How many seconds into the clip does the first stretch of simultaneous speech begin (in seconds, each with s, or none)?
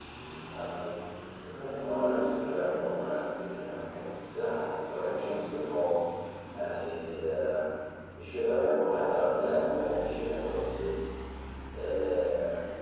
1.8 s